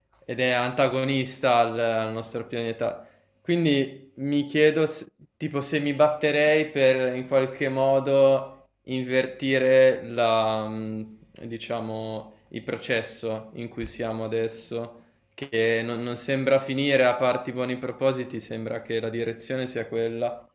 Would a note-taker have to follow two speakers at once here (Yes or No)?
No